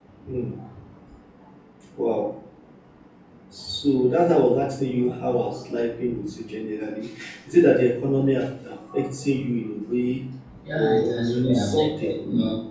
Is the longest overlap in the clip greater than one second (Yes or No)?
Yes